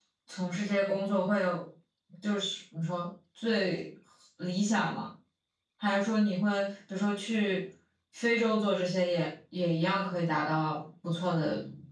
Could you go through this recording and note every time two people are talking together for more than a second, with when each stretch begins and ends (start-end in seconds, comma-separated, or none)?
none